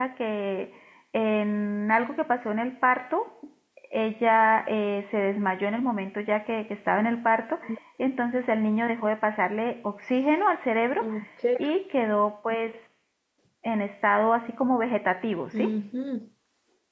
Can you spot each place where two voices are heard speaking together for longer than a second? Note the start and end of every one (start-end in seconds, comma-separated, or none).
none